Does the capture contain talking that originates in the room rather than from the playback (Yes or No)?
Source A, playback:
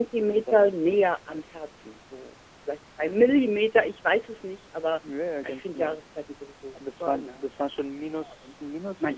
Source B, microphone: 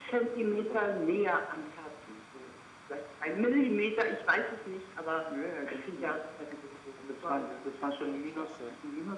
Yes